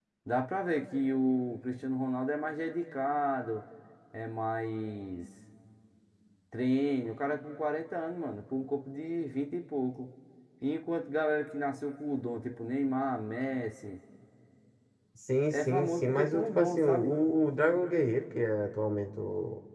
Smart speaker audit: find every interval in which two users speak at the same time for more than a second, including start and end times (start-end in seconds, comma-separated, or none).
15.5-17.1